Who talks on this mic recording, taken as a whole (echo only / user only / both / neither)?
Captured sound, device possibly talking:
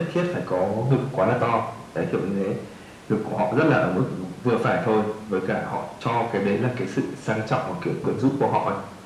echo only